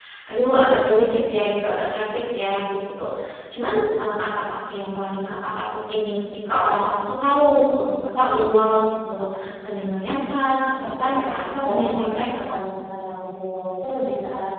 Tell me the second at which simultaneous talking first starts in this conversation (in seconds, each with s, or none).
10.8 s